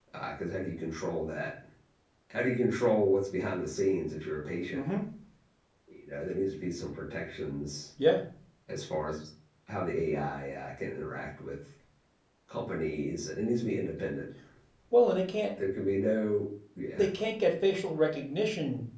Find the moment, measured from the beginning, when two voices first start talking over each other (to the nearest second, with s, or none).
none